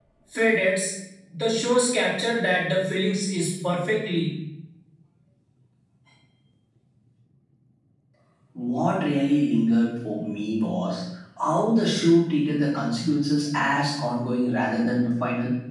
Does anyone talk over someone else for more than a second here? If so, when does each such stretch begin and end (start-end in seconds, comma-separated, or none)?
none